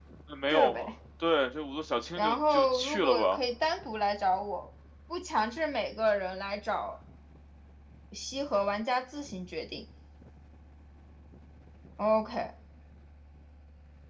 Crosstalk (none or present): present